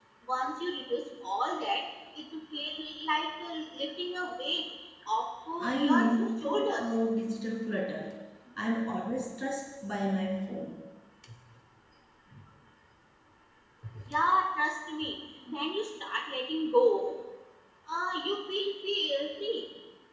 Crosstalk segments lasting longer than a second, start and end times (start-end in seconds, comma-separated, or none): 5.6-6.9